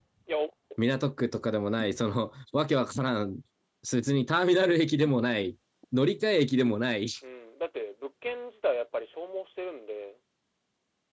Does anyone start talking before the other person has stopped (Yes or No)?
No